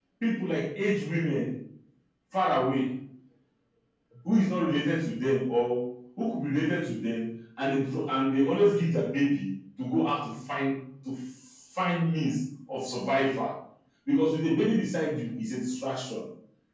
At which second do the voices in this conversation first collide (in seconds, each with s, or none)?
none